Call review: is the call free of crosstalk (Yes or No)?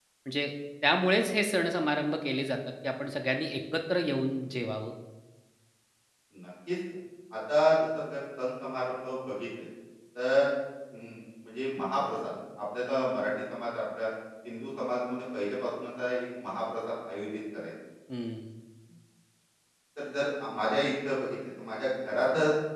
Yes